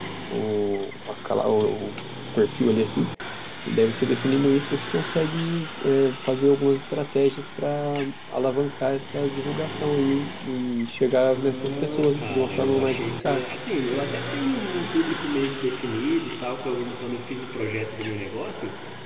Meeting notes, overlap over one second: present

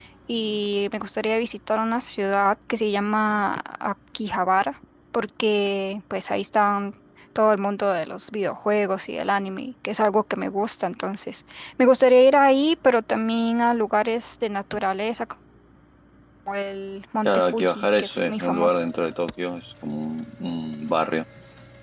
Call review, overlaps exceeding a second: present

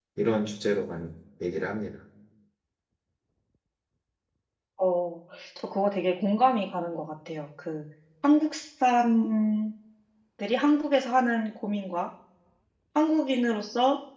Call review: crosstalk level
none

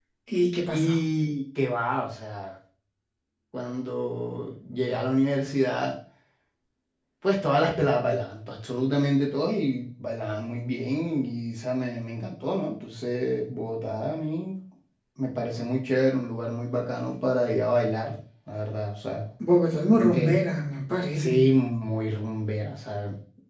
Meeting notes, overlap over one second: none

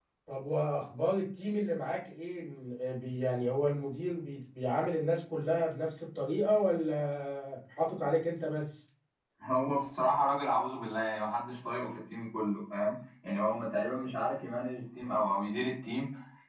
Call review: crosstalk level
none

